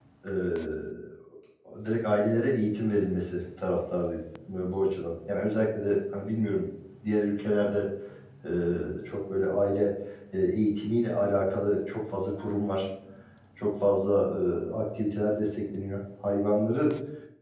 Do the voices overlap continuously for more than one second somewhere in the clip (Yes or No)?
No